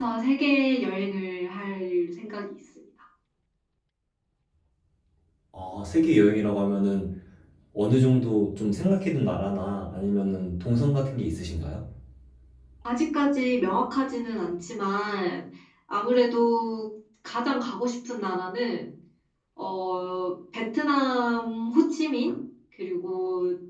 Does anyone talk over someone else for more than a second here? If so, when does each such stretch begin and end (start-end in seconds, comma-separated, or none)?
none